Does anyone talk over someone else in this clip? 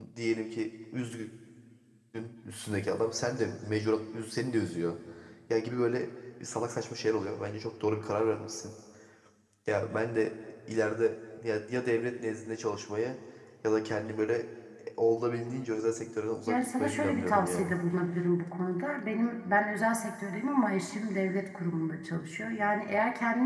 Yes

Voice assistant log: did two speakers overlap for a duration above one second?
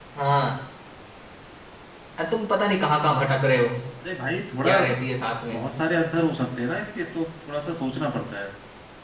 No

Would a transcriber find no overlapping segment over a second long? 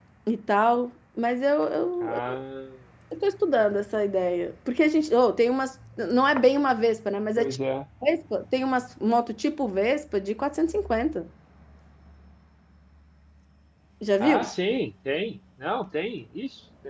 Yes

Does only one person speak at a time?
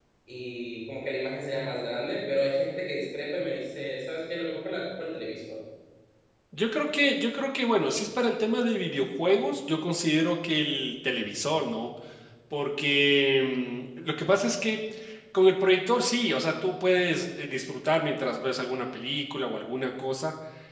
Yes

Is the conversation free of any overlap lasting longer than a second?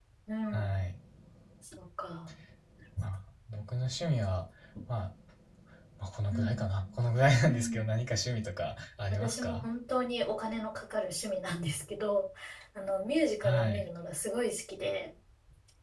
Yes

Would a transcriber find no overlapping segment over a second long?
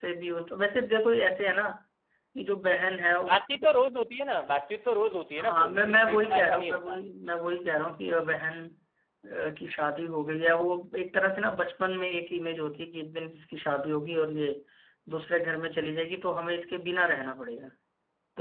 No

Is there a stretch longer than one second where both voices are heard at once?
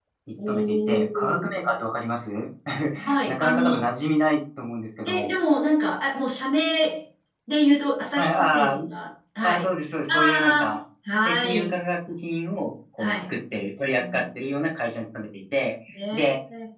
Yes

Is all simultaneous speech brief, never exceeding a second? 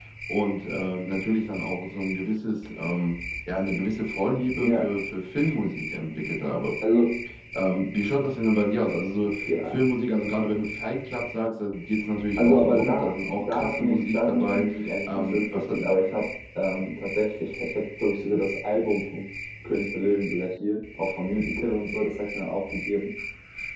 No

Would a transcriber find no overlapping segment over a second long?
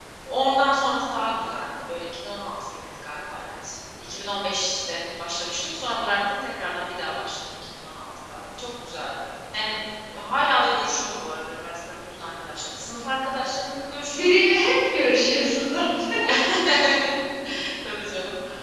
Yes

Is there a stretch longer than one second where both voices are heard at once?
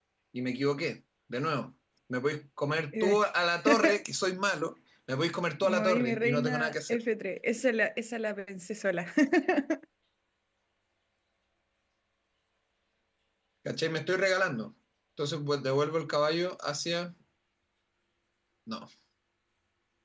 Yes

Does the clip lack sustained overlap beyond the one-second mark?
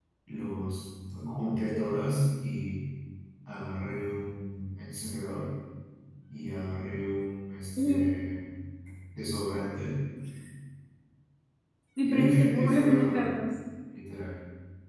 No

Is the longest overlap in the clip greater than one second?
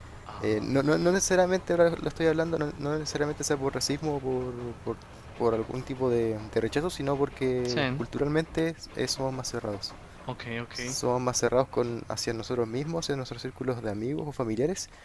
No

